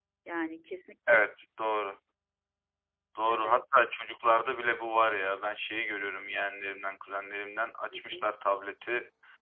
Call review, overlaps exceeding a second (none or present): none